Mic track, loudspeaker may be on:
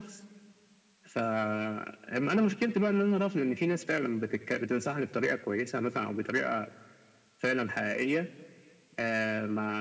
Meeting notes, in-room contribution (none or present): none